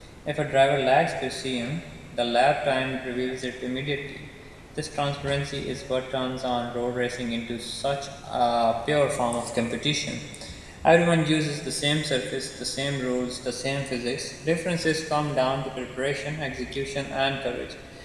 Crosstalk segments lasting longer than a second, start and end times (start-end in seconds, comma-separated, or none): none